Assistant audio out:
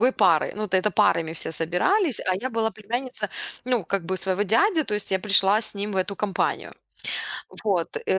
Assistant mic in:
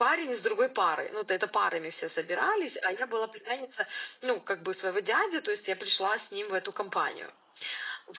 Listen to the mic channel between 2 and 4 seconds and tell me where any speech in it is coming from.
echo only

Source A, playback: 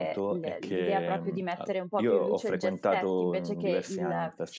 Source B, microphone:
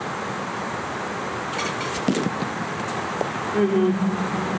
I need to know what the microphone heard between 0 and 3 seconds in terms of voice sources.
neither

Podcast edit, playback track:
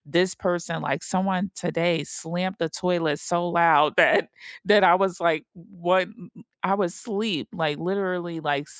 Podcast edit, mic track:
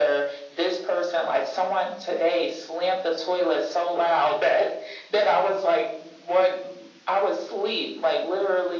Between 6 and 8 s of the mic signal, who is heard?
echo only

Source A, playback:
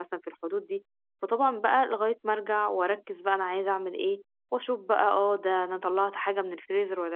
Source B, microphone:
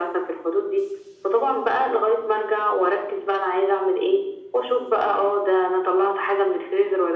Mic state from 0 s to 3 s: echo only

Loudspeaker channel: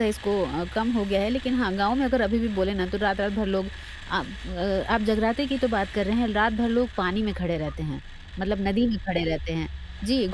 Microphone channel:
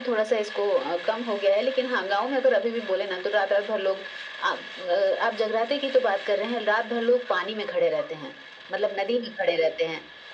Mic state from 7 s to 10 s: echo only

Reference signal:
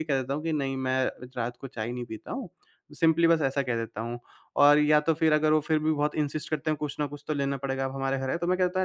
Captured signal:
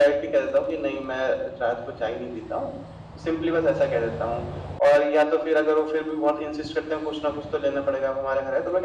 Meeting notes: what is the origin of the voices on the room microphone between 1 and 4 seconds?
echo only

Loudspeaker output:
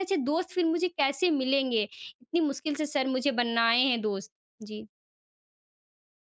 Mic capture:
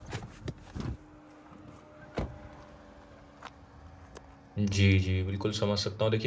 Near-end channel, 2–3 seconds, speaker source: neither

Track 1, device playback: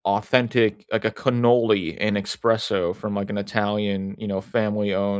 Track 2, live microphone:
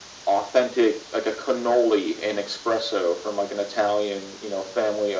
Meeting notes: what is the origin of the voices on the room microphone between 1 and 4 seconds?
echo only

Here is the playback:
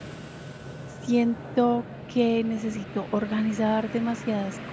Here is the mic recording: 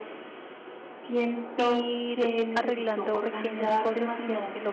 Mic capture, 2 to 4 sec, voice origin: both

